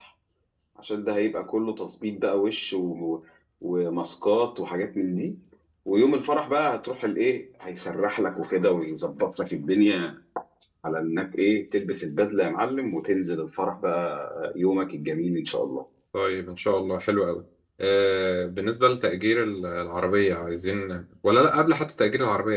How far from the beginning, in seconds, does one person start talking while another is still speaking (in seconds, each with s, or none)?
none